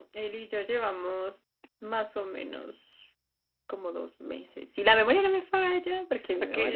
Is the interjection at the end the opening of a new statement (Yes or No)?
Yes